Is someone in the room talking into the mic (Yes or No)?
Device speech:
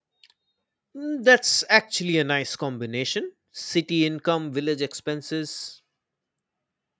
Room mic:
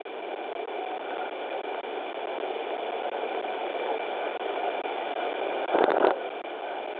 No